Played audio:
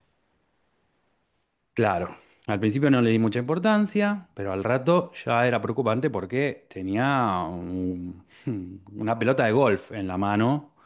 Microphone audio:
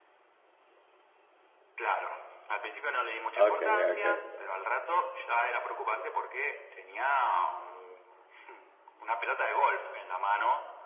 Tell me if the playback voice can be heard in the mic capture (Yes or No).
Yes